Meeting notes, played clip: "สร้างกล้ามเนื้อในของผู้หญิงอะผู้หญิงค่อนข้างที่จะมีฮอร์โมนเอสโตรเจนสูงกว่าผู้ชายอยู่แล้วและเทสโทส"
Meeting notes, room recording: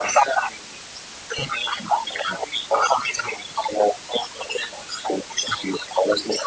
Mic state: echo only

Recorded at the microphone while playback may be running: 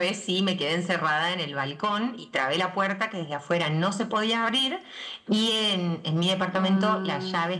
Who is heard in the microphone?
both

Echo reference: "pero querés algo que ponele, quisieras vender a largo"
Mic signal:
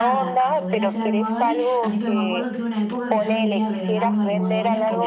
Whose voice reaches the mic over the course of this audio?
both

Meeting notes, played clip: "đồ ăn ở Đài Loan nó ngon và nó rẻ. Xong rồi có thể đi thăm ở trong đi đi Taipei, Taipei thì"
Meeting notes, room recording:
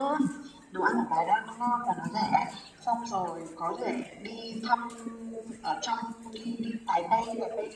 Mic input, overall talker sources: echo only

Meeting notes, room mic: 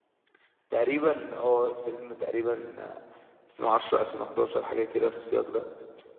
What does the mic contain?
user only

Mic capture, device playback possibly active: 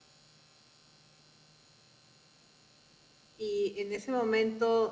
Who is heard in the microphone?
user only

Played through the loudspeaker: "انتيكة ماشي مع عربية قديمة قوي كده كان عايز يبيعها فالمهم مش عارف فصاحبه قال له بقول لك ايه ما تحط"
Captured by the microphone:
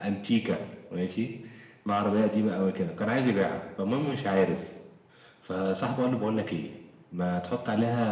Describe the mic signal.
echo only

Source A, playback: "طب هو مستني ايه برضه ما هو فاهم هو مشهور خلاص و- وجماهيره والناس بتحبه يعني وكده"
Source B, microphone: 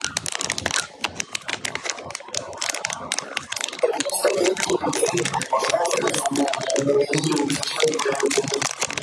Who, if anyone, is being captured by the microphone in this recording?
echo only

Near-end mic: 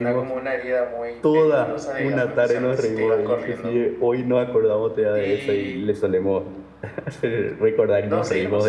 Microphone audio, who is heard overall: both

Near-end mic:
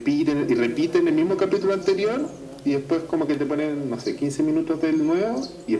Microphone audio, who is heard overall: both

